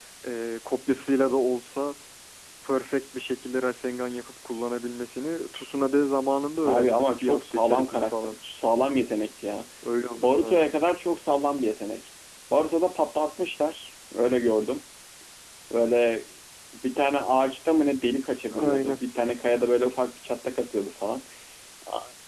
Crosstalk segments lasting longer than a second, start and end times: 6.7-8.4

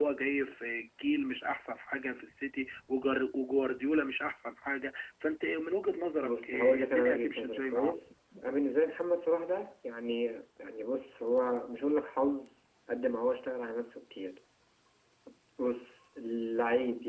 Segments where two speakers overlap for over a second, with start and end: 6.2-7.9

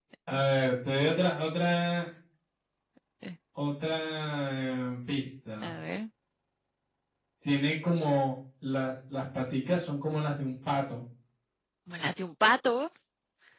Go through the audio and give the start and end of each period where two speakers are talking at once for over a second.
none

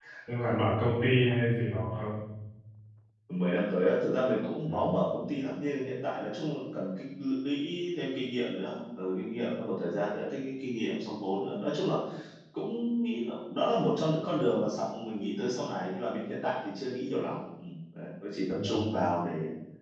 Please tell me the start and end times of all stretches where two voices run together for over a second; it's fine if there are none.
none

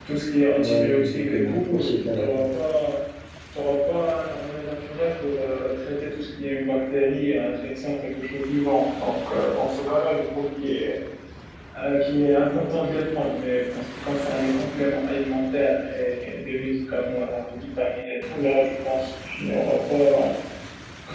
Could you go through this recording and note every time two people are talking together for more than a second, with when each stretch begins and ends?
0.6-2.3

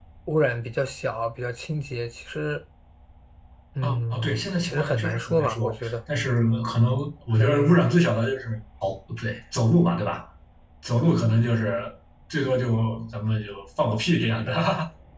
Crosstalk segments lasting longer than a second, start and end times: 3.8-5.9

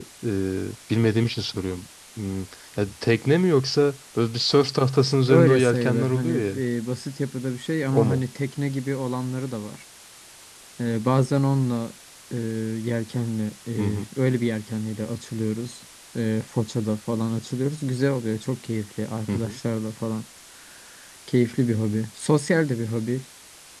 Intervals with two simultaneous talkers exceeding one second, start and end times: 5.0-6.6

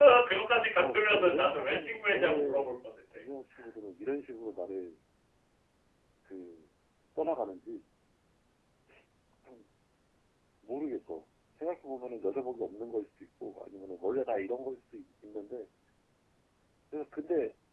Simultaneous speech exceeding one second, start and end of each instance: 0.7-2.7

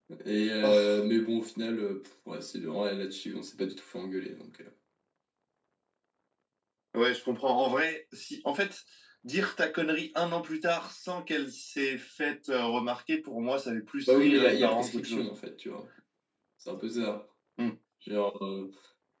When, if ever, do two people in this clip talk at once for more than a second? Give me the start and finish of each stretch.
14.1-15.3

